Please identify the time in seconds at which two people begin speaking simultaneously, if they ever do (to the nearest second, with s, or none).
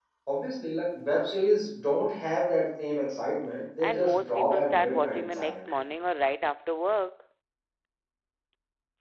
4 s